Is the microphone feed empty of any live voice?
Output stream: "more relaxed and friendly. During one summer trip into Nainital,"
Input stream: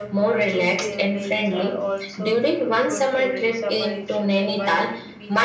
No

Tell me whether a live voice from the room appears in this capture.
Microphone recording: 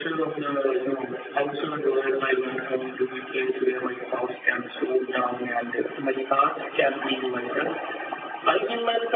No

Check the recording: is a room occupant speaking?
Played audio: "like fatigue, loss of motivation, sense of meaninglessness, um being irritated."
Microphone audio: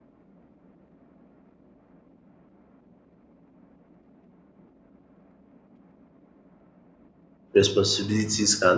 Yes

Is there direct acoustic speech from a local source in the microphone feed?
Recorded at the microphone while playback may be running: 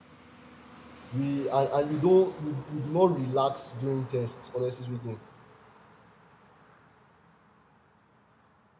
Yes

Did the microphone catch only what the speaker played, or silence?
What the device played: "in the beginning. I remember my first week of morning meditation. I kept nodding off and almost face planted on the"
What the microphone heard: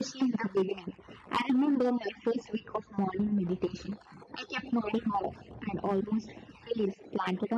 Yes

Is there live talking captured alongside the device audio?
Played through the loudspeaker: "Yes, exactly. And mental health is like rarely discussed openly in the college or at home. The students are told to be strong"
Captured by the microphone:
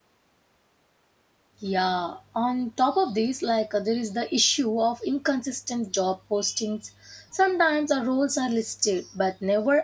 Yes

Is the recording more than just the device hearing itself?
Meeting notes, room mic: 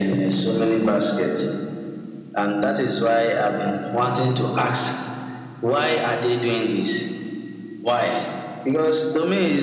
No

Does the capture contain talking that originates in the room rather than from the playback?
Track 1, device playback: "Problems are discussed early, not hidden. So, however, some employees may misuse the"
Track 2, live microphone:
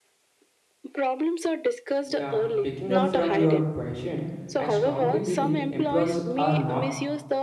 Yes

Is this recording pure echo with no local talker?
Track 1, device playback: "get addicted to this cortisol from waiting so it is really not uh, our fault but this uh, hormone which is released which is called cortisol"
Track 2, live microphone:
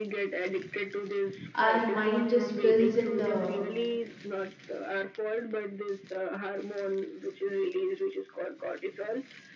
No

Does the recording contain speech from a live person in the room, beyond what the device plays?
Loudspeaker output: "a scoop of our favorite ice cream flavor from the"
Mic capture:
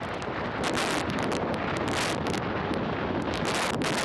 No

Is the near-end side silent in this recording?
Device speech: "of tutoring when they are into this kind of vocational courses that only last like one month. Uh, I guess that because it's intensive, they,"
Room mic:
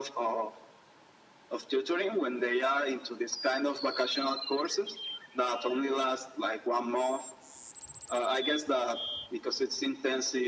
Yes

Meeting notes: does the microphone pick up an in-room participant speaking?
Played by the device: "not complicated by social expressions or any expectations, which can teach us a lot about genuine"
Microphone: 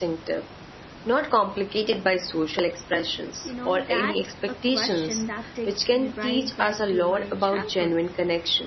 Yes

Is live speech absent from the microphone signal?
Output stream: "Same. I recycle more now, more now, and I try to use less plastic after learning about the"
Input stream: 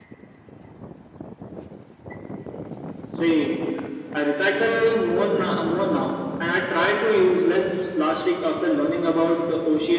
Yes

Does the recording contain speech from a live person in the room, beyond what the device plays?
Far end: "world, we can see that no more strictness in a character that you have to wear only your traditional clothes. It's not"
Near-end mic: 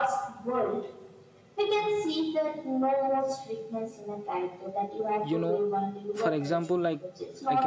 Yes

